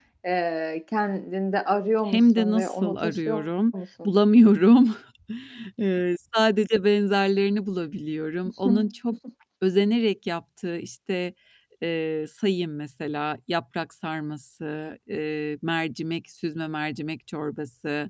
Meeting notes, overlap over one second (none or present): present